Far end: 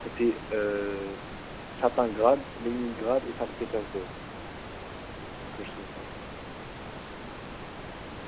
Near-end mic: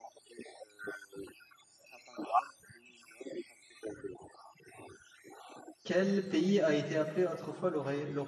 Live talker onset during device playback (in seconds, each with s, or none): 5.8 s